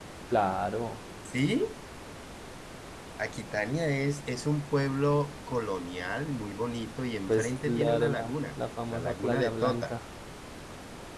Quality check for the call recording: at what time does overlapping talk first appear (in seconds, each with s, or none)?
7.3 s